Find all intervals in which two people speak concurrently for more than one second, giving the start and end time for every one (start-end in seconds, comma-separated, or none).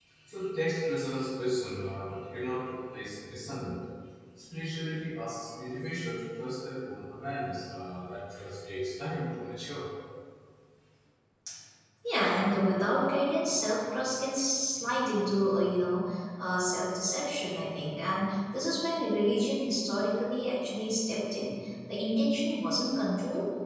none